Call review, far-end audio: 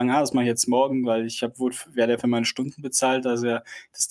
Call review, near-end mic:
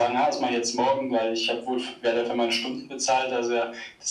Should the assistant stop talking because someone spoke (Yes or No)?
No